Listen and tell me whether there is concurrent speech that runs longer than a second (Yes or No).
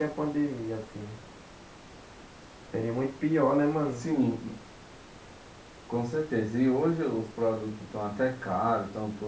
No